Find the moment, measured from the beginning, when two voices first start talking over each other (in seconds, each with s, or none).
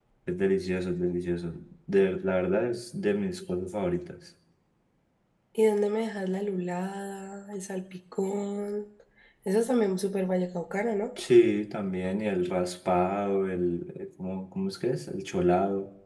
none